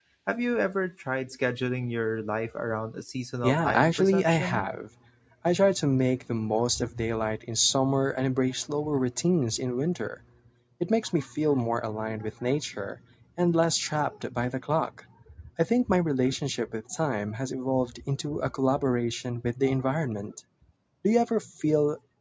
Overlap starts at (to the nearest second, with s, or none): 3 s